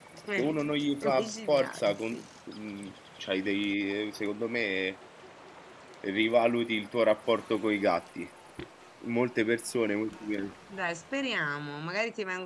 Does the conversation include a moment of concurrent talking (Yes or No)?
Yes